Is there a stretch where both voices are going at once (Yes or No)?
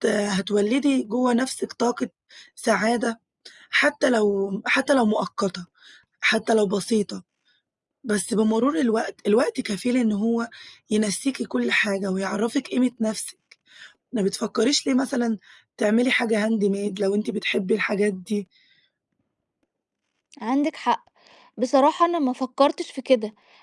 No